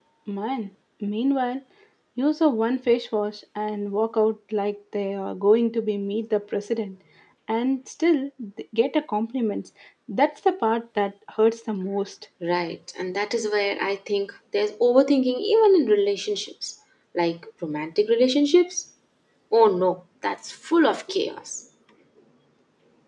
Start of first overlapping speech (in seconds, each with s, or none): none